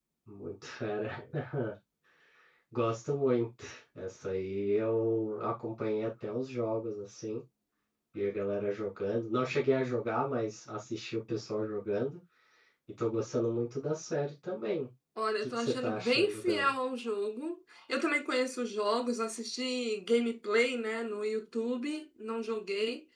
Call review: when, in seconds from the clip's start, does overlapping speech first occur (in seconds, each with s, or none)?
15.4 s